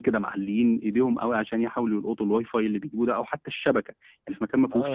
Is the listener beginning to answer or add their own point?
Yes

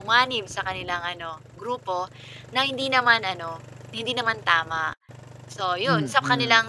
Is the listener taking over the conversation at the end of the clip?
No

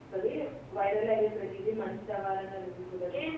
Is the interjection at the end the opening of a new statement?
Yes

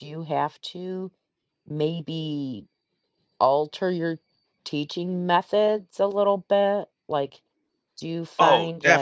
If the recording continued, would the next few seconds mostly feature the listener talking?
Yes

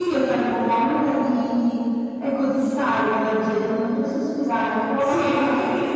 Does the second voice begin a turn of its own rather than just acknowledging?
Yes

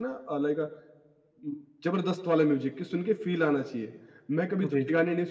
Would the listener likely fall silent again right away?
Yes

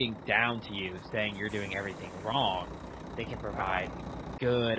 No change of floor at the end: Yes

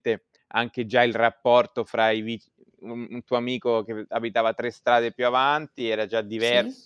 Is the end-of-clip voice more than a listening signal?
No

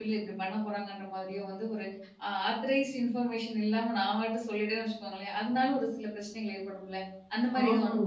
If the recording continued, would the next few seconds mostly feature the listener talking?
Yes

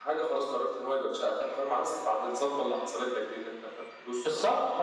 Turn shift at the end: Yes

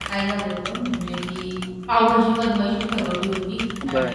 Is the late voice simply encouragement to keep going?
Yes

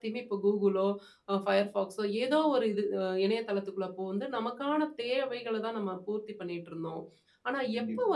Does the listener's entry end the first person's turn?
No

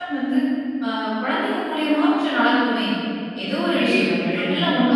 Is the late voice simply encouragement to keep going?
Yes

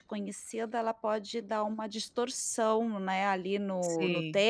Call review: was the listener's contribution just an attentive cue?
Yes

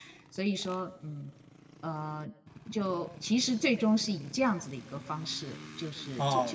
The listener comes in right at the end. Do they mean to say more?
Yes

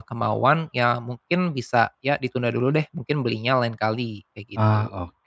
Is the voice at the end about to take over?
Yes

